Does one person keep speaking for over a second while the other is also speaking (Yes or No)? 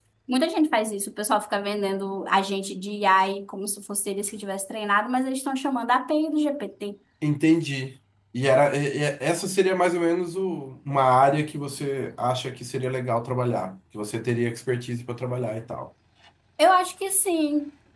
No